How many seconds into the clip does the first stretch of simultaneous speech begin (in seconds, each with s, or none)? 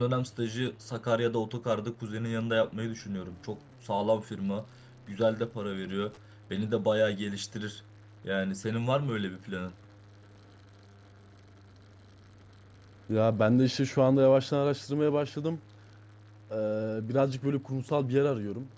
none